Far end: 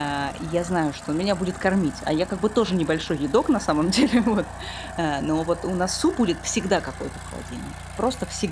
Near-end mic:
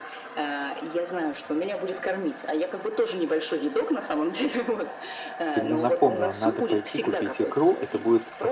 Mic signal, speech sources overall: both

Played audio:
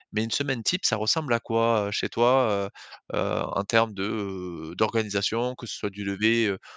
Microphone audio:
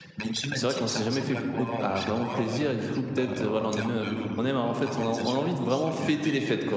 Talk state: both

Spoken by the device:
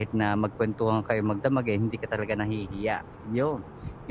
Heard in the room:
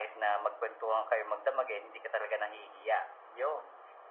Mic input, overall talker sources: echo only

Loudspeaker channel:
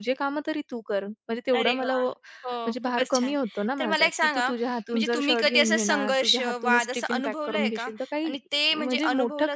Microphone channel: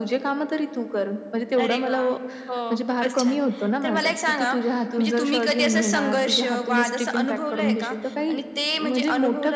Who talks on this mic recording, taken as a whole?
echo only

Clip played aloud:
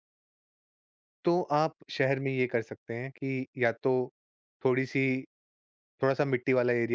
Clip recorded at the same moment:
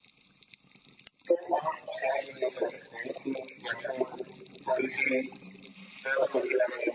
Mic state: echo only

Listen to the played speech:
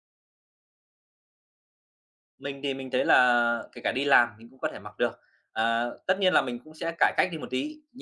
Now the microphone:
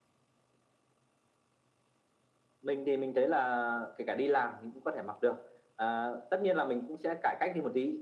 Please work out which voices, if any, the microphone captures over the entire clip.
echo only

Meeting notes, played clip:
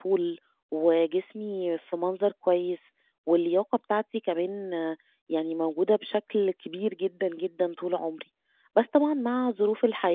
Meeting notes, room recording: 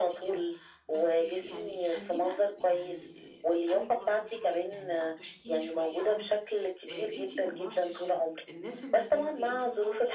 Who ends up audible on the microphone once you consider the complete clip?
both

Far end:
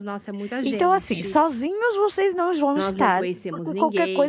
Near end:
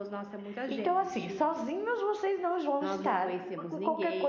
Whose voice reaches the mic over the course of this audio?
echo only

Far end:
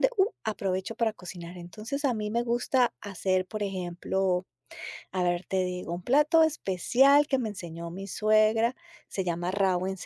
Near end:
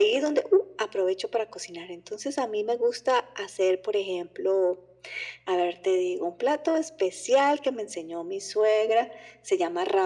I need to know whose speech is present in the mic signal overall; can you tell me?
echo only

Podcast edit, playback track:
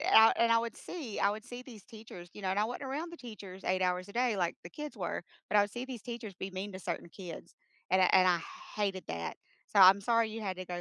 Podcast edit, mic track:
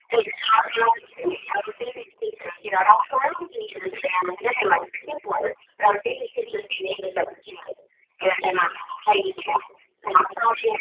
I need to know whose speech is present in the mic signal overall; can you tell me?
echo only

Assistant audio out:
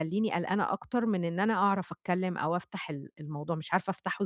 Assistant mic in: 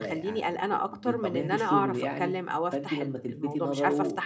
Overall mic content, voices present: both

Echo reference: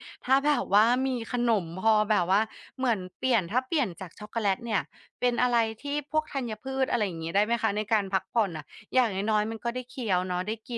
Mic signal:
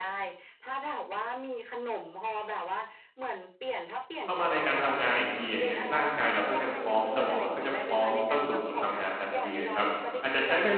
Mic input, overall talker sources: both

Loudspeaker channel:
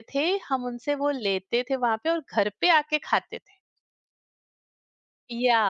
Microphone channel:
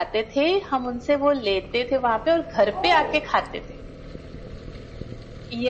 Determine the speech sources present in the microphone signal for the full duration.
both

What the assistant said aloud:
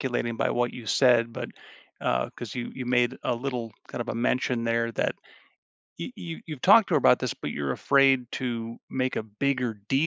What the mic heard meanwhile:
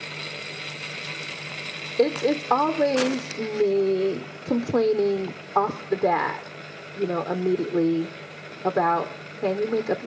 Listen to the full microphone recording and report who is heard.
user only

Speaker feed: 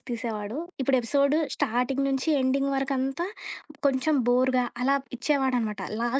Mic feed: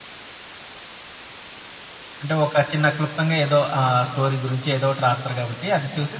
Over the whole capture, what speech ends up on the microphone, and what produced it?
user only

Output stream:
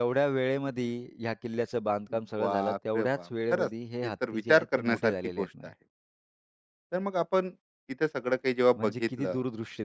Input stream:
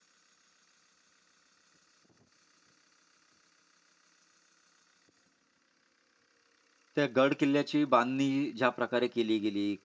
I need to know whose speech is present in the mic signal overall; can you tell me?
user only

